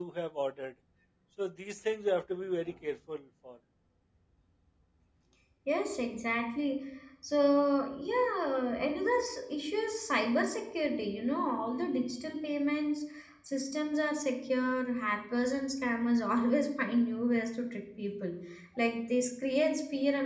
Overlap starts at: none

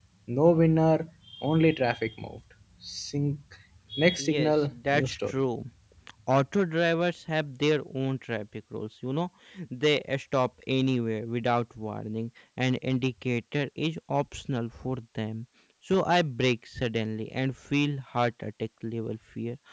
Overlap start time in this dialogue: 4 s

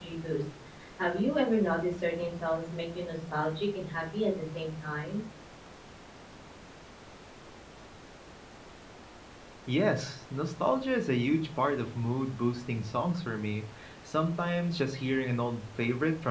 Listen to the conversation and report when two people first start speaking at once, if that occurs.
none

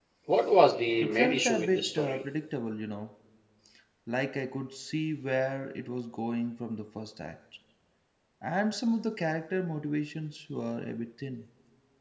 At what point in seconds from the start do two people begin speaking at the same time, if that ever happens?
1 s

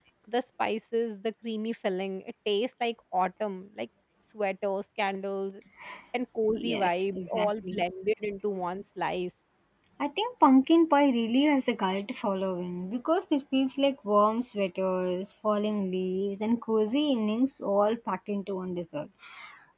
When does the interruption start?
7 s

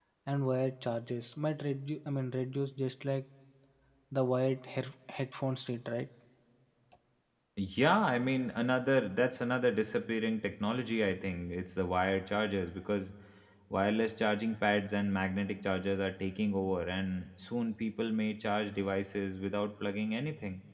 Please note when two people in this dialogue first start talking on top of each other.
none

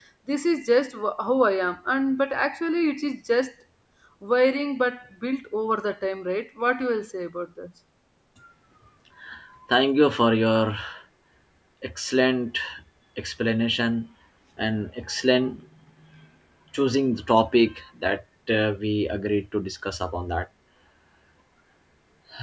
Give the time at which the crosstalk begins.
none

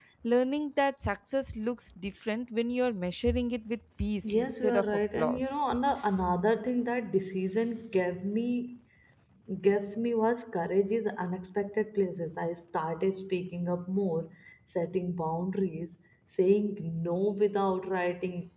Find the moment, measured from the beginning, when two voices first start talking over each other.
4 s

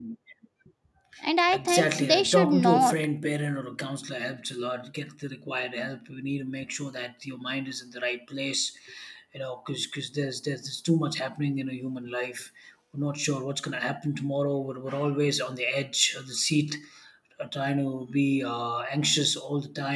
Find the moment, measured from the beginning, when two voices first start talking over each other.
2 s

